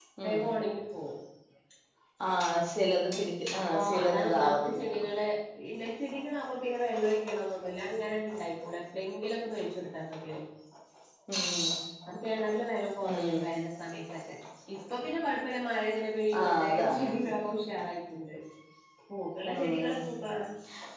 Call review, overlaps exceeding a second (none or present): present